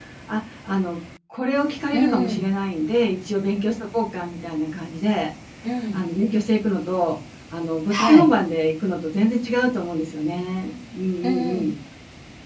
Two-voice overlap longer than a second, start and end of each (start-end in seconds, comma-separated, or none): none